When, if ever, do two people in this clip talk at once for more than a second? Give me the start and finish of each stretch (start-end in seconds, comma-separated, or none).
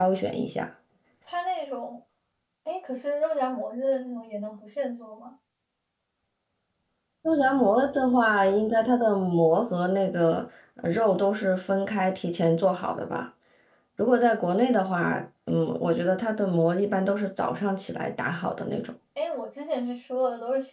none